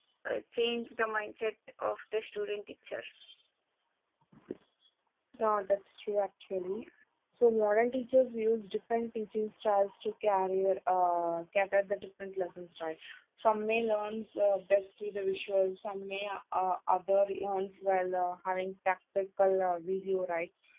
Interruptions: none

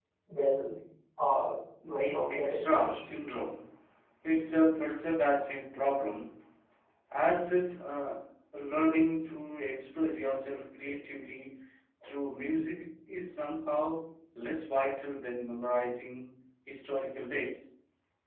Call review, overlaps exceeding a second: present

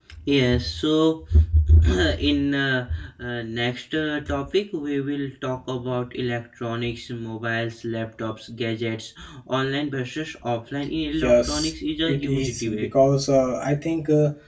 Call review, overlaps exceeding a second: present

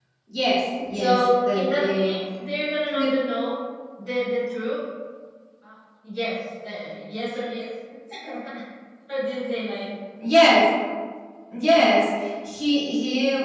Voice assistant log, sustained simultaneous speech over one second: present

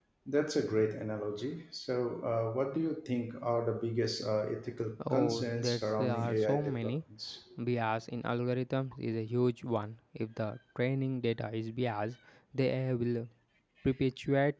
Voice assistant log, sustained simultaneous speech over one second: present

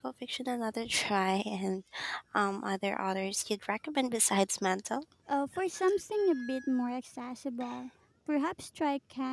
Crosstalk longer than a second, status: none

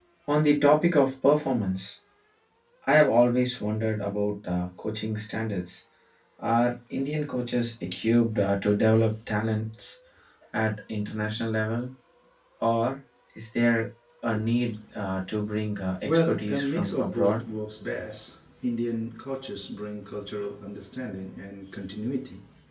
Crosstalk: present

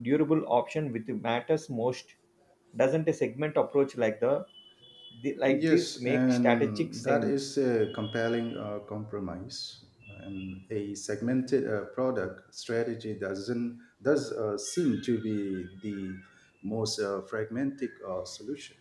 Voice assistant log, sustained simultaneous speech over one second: present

